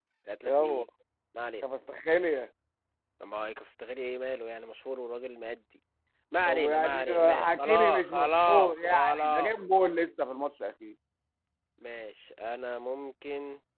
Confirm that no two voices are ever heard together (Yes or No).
No